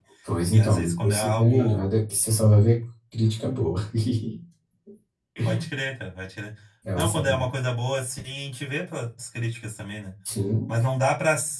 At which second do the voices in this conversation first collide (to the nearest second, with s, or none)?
1 s